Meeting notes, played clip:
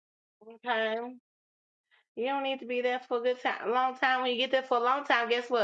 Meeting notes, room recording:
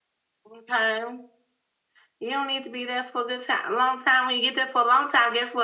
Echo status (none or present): present